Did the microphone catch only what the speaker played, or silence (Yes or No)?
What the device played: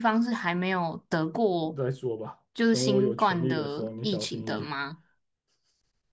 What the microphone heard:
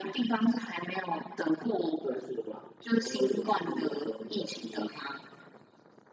Yes